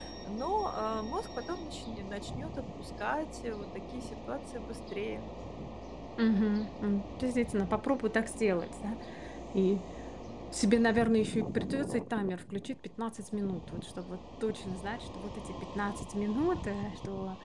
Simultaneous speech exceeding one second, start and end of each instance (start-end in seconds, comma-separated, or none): none